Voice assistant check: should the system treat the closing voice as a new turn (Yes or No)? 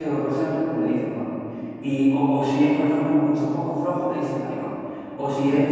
No